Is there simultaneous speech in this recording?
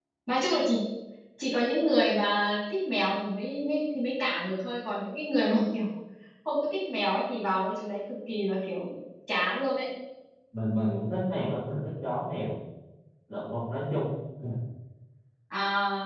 No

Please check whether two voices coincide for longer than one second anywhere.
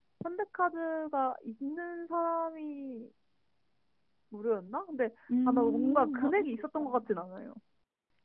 Yes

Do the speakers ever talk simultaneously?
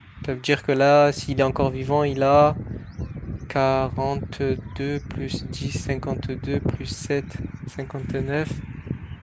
No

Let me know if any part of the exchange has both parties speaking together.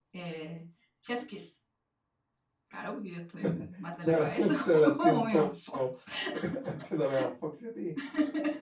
Yes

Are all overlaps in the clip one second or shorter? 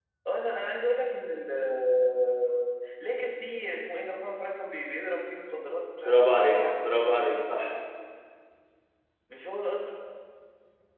No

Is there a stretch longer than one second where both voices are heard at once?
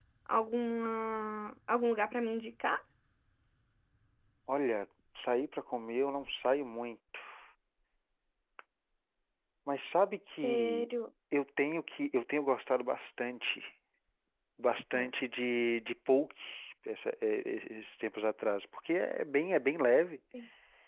No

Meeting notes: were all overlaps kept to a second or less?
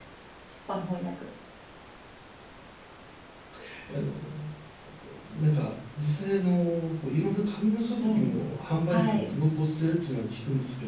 Yes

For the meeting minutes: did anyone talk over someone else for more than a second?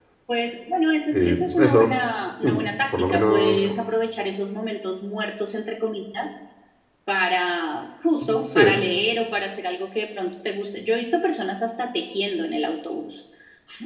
Yes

